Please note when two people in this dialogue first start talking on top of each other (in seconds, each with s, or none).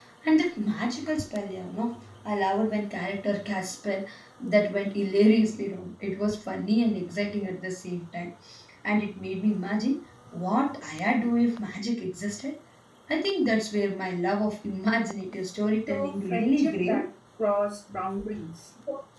15.7 s